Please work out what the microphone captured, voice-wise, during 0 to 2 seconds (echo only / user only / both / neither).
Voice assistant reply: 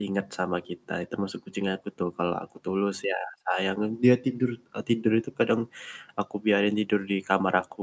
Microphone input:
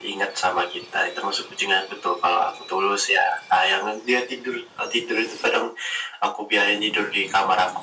echo only